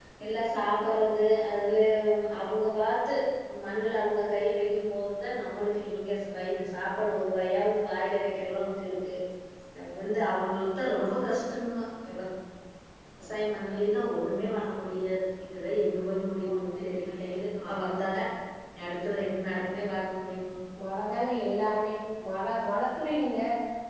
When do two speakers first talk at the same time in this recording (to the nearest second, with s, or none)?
none